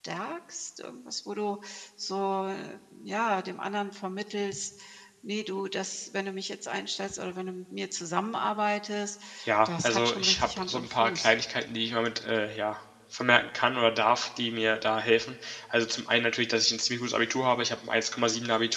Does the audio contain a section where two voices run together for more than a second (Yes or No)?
Yes